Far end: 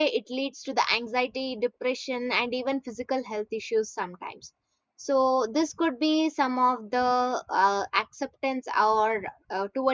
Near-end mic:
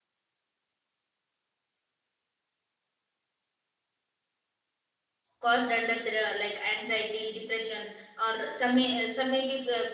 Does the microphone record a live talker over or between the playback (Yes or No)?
Yes